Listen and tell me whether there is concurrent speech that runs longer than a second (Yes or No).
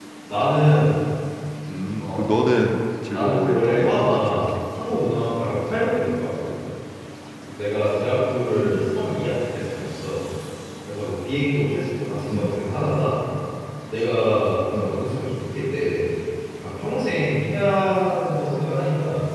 Yes